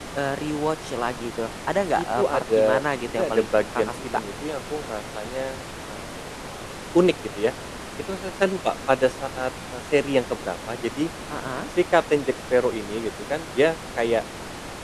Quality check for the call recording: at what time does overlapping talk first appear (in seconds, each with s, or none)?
2.0 s